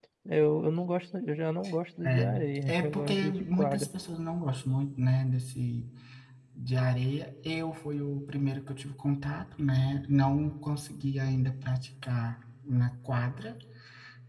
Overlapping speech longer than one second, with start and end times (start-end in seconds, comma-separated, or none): 2.7-3.9